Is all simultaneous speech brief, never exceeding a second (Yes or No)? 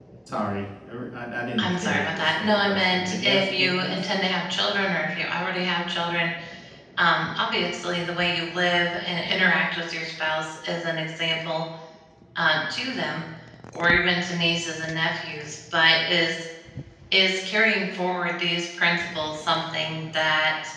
No